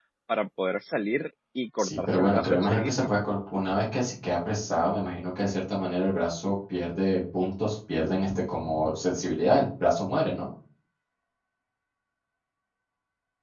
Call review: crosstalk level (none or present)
present